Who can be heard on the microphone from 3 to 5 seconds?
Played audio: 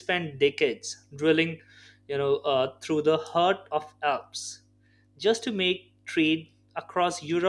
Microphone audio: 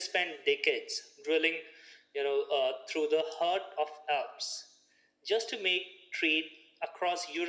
echo only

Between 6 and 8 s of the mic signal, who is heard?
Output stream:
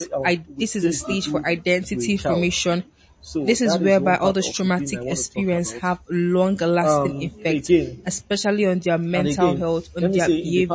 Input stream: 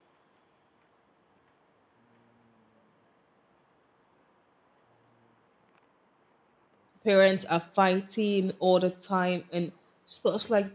user only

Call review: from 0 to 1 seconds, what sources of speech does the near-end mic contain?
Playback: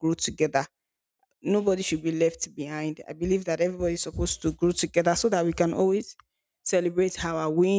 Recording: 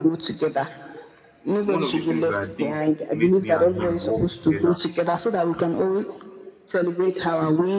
echo only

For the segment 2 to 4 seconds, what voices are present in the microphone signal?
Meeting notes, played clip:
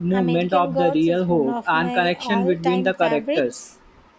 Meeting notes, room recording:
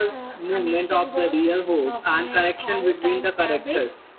echo only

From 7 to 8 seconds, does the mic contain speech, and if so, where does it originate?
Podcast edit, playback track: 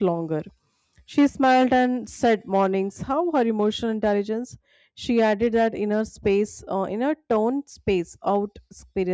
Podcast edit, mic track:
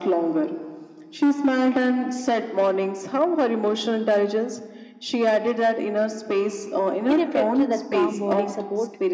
both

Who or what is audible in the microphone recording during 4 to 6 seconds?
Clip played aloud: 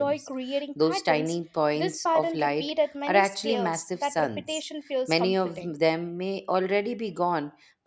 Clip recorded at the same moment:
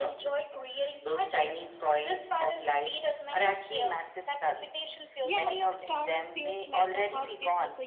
both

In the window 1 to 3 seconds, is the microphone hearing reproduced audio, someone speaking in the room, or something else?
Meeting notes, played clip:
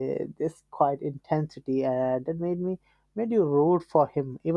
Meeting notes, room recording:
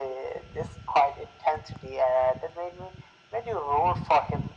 echo only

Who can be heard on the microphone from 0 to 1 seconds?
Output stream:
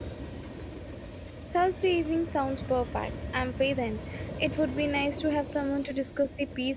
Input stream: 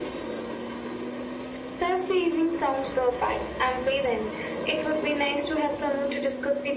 neither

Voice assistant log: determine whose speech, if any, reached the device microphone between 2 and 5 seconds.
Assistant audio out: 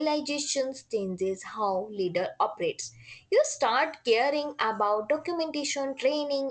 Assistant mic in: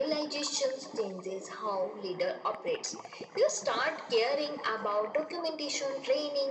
echo only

